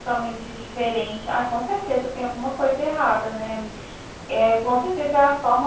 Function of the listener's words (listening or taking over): listening